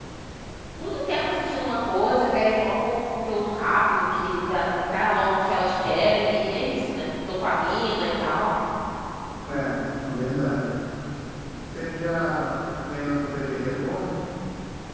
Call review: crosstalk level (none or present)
none